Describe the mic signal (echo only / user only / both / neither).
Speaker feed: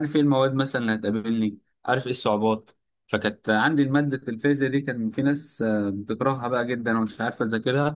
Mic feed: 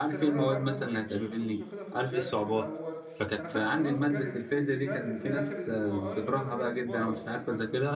both